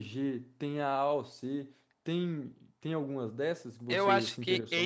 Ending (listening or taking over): taking over